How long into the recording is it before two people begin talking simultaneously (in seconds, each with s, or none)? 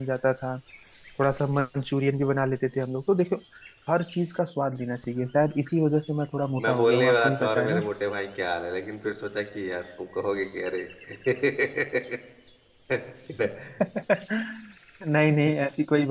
6.6 s